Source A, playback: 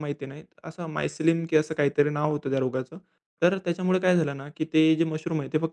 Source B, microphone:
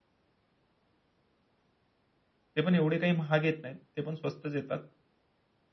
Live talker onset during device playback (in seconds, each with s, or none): 2.5 s